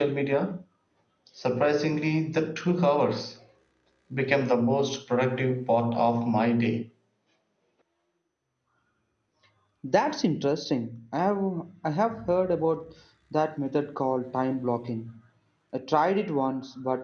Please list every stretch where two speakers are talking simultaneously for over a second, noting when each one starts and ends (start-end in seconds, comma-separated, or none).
none